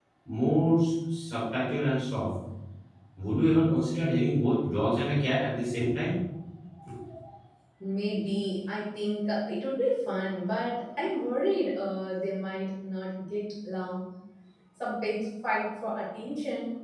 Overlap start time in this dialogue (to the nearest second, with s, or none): none